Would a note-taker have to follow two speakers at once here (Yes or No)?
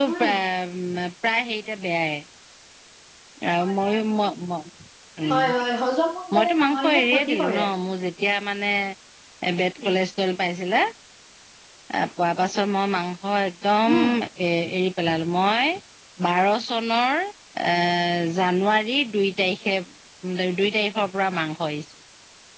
Yes